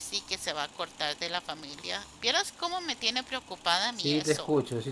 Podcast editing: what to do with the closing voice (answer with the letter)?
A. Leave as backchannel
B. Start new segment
B